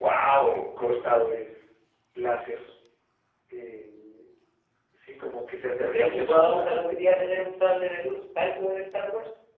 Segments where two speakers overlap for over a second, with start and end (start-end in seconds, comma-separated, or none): 5.8-7.5